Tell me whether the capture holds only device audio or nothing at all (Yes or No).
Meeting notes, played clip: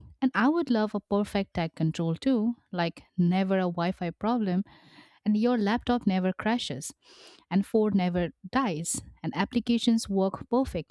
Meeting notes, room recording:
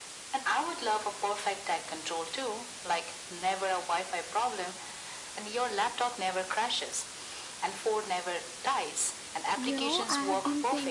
No